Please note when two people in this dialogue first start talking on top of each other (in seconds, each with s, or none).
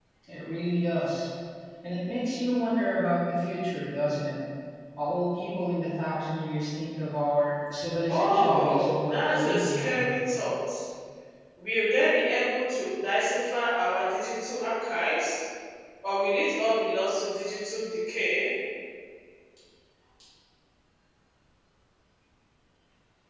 8.1 s